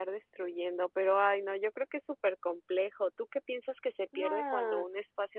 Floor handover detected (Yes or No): No